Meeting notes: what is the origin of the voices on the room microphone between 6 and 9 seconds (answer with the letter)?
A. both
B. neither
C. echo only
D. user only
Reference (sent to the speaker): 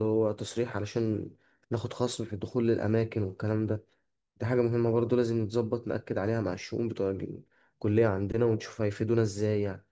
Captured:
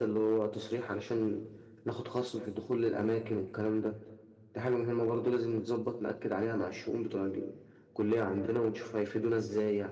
C